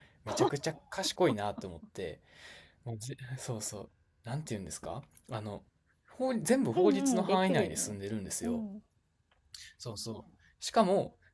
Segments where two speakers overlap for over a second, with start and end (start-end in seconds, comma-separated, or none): 6.8-8.0